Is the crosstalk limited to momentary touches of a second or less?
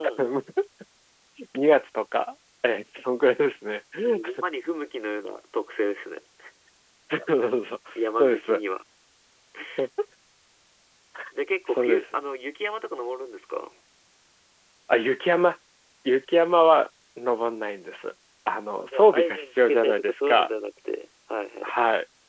No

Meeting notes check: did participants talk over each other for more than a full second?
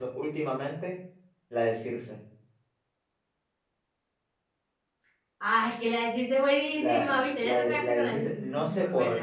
Yes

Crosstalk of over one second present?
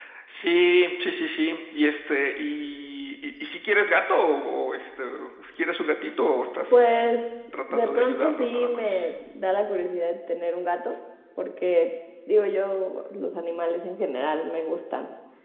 Yes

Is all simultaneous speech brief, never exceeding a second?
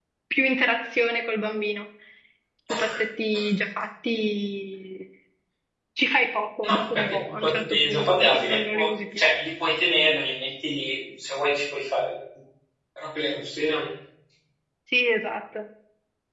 No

